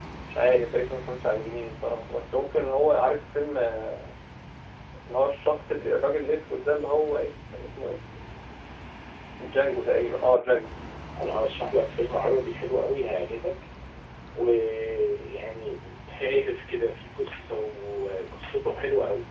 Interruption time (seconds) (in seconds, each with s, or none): none